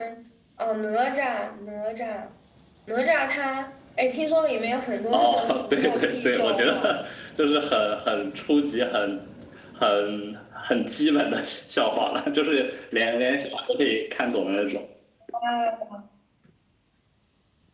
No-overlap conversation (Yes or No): No